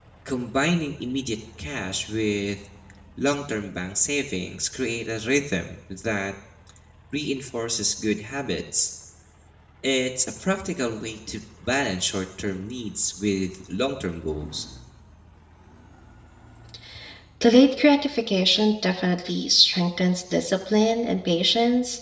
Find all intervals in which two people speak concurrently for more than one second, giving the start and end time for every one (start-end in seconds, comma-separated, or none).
none